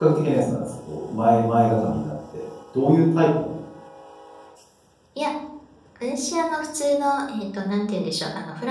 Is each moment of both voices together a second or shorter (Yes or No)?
Yes